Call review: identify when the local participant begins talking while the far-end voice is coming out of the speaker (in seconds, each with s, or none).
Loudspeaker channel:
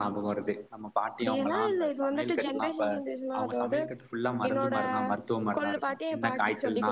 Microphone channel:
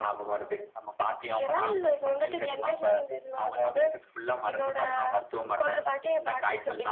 none